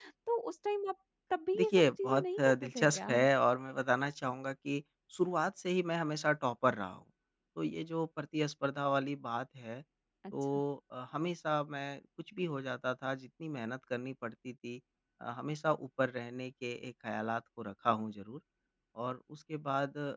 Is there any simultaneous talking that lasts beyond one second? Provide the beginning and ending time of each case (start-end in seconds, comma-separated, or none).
1.6-3.2